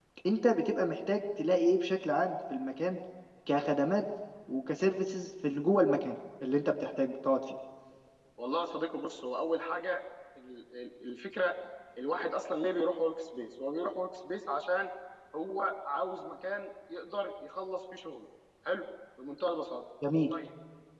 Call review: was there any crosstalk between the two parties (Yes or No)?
No